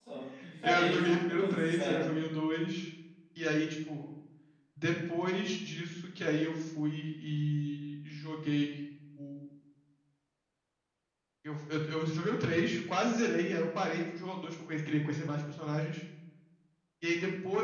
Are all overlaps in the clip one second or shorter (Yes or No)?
No